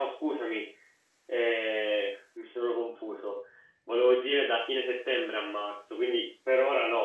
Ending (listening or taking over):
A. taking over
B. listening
A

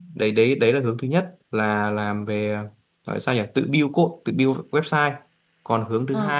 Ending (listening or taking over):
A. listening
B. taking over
A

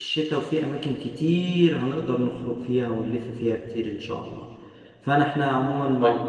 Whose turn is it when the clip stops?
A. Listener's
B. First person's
B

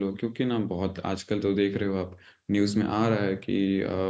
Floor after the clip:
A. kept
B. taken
A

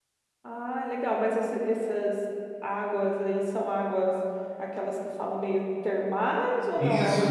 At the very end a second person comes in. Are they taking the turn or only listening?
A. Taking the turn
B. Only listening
A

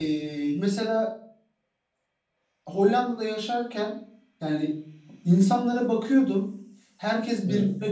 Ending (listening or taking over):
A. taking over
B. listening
B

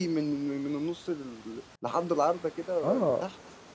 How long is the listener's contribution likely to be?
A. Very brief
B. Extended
B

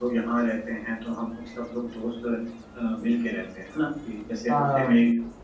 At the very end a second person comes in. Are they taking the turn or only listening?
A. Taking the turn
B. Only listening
B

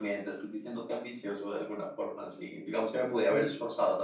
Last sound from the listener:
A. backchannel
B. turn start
A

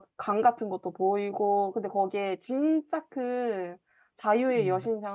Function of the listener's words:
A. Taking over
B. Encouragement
B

